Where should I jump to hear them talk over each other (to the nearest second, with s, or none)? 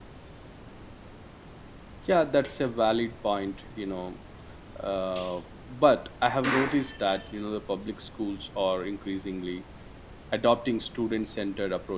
none